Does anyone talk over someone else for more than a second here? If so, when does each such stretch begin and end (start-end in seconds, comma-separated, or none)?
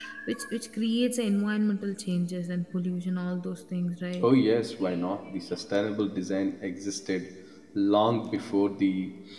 none